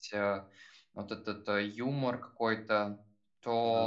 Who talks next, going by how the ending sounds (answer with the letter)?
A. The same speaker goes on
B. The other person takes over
A